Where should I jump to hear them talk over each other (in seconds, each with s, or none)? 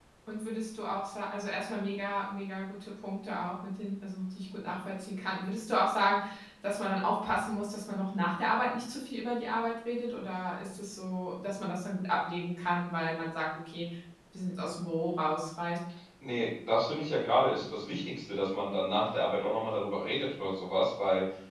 none